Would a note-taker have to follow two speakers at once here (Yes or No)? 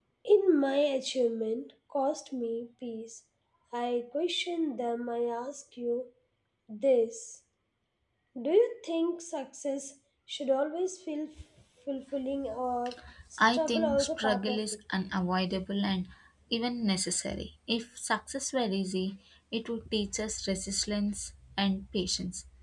Yes